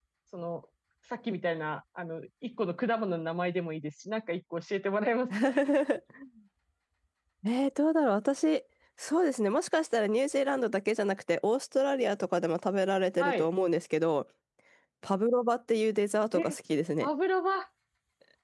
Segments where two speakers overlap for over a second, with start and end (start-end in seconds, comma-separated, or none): none